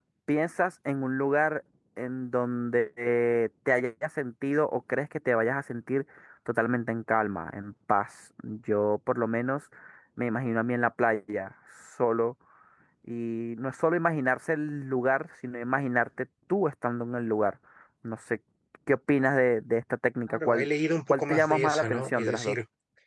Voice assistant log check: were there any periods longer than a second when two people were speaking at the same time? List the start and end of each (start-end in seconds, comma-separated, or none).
21.1-22.6